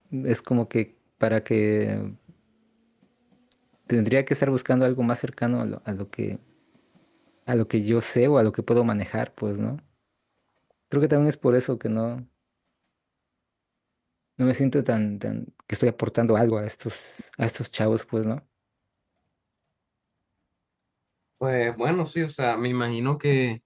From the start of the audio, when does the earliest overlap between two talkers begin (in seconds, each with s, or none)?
none